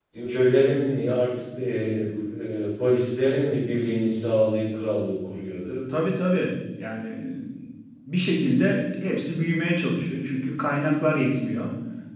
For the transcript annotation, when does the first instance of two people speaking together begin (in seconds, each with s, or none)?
none